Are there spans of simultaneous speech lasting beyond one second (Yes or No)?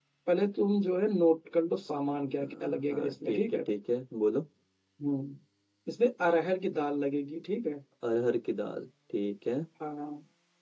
Yes